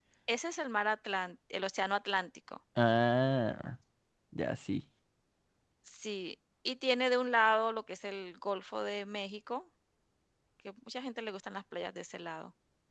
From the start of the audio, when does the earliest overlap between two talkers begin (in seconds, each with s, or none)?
none